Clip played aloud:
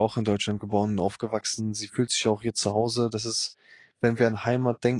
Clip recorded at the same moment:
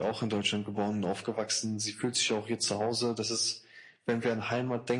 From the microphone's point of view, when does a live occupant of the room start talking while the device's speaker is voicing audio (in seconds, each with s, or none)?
none